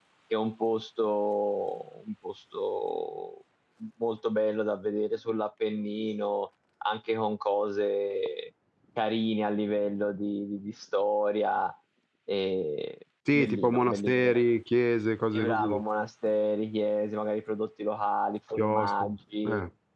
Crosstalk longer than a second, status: present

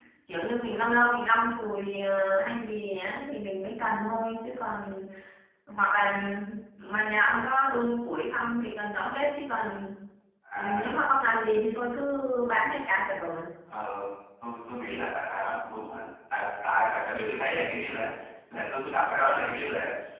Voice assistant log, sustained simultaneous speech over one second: none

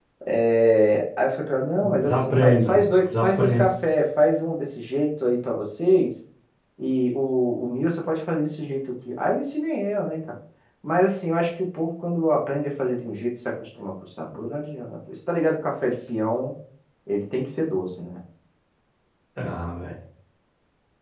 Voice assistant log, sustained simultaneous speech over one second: present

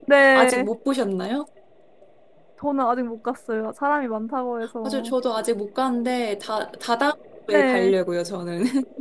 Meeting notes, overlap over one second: none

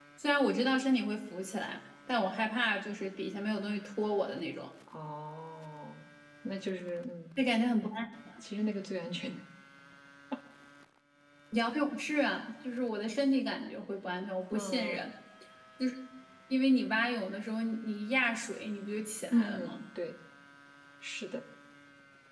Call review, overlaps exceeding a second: none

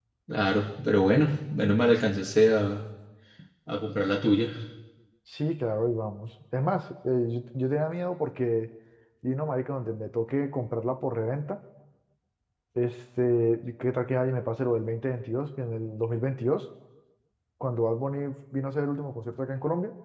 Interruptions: none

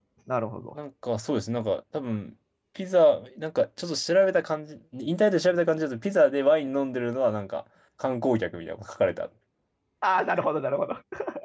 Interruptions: none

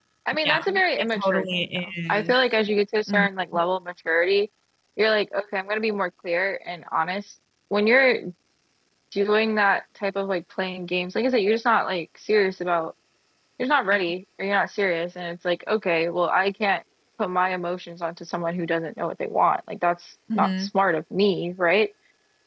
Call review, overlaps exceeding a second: present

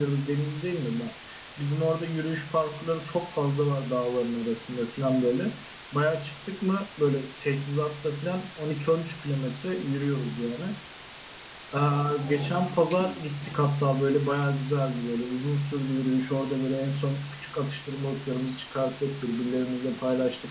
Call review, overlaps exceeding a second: present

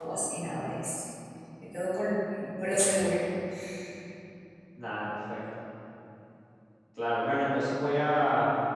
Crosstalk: none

